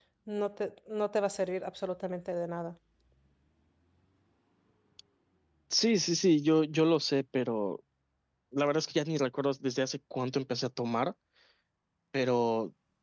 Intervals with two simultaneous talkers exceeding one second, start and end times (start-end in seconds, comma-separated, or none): none